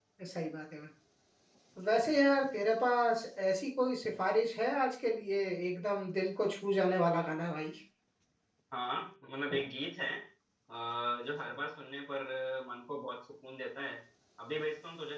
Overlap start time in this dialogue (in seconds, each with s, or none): none